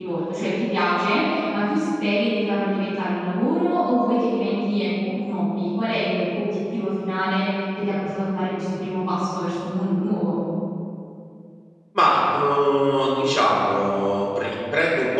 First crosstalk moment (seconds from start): none

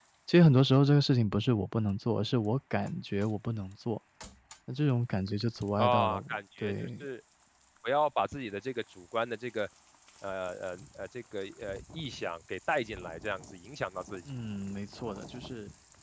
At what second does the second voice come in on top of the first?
5.8 s

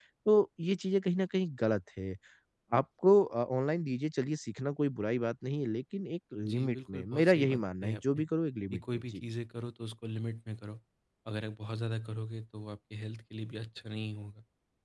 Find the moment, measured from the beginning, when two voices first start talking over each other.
6.4 s

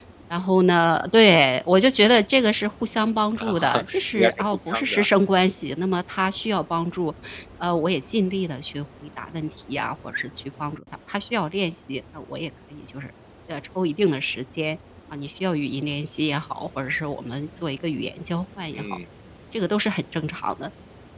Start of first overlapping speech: 3.3 s

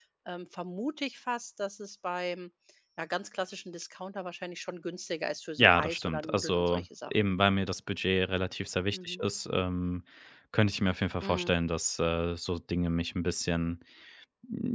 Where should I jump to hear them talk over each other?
5.6 s

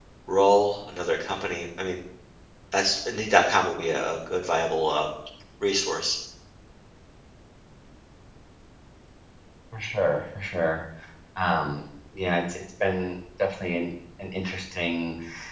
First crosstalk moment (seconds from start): none

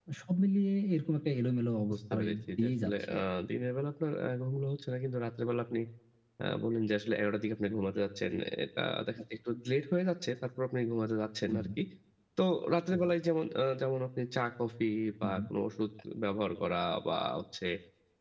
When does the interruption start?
1.9 s

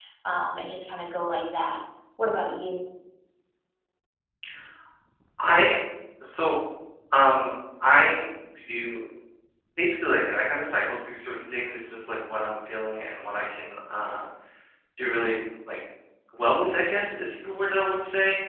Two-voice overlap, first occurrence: none

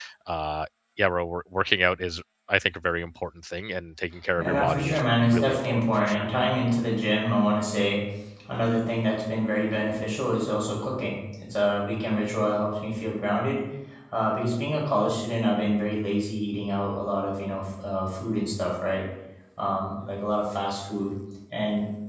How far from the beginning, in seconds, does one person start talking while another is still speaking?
4.4 s

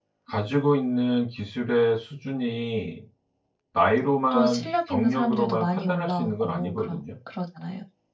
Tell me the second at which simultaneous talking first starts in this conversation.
4.3 s

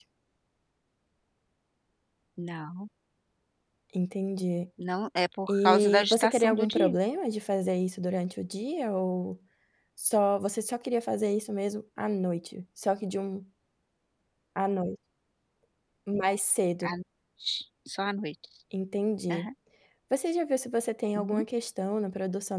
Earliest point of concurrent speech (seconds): 5.5 s

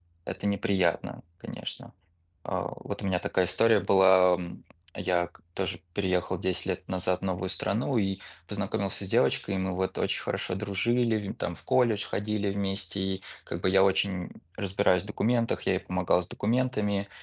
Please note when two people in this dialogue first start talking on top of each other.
none

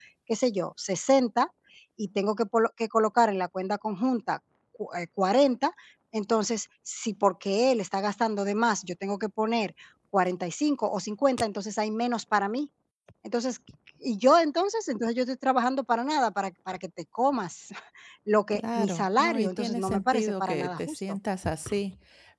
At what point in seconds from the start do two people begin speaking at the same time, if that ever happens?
18.5 s

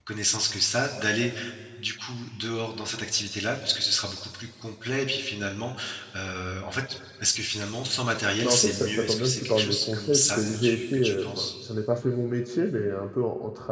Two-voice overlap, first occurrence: 8.4 s

